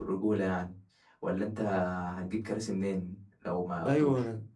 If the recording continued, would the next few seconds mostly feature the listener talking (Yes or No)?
Yes